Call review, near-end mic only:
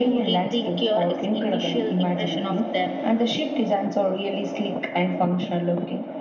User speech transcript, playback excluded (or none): none